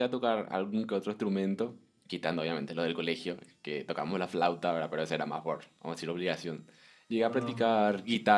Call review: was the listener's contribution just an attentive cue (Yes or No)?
Yes